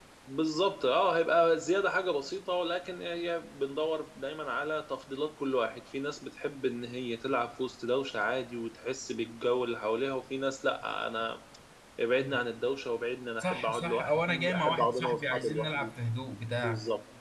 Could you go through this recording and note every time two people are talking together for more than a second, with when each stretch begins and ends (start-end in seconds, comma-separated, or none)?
13.4-15.9